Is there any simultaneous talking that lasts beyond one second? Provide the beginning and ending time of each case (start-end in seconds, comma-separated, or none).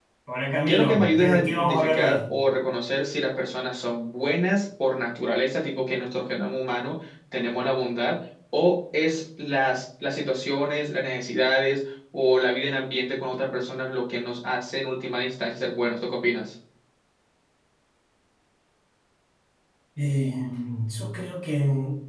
0.7-2.3